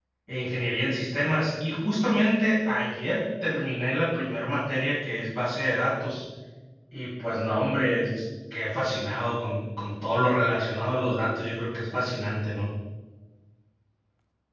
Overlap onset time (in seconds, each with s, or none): none